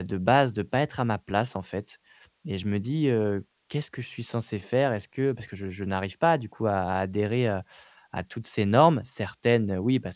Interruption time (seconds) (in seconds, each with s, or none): none